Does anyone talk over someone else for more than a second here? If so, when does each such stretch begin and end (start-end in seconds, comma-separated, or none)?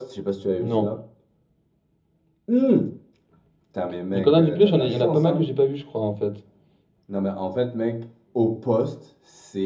4.1-5.5